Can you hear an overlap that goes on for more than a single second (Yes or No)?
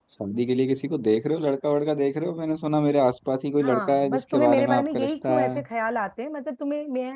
Yes